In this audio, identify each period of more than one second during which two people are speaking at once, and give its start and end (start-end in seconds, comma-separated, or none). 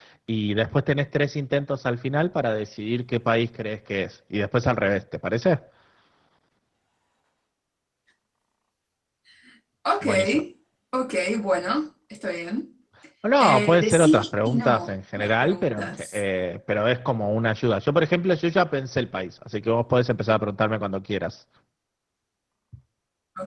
13.4-16.2